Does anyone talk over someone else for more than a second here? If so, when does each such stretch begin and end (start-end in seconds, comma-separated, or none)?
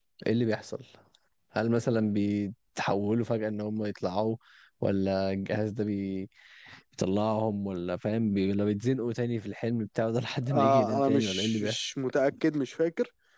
10.5-11.8